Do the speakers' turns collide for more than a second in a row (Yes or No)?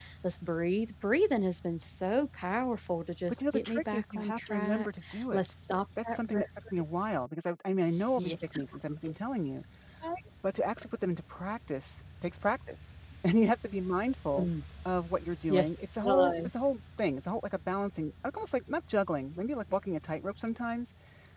Yes